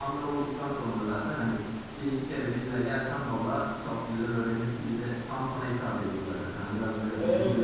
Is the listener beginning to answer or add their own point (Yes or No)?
Yes